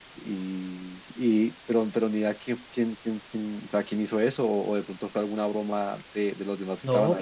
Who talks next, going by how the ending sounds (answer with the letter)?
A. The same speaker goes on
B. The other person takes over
B